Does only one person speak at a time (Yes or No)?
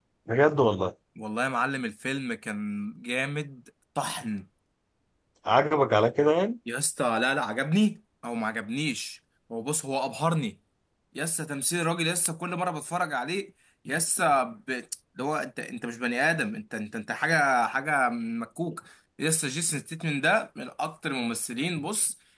Yes